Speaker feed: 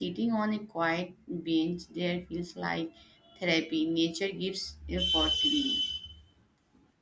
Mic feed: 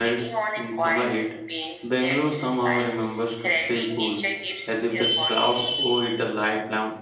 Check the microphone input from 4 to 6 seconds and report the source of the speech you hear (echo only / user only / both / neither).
both